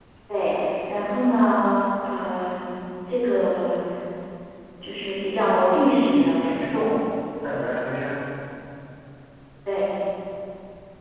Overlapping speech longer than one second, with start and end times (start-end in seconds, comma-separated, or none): 5.6-6.9